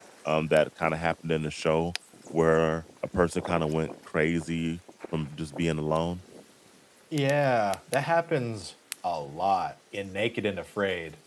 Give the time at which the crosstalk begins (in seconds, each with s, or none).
none